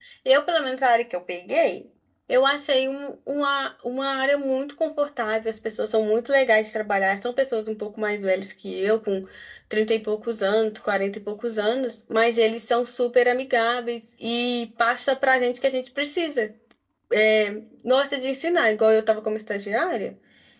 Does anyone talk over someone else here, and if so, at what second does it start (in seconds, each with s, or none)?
none